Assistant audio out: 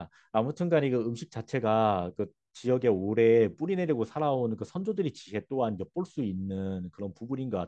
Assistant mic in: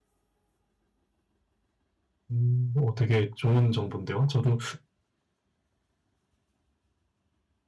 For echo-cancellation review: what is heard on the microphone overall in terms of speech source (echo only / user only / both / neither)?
user only